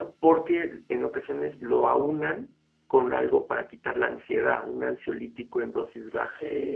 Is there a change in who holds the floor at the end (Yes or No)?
Yes